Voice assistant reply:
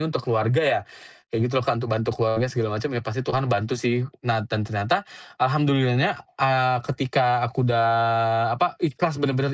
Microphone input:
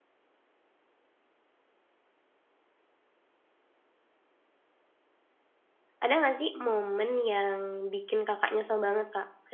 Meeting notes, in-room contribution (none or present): present